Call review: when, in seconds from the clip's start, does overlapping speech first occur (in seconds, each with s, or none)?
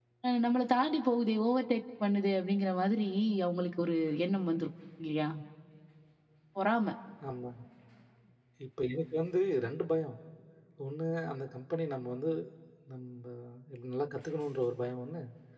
none